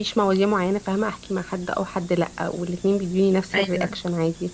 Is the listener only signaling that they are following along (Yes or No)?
Yes